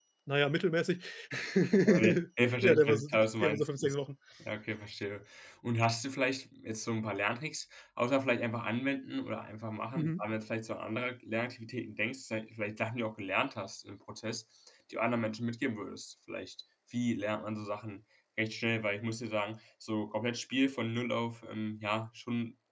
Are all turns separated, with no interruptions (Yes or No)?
No